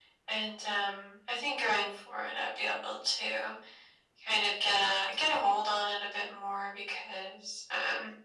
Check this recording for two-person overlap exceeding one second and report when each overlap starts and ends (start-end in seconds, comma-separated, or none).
none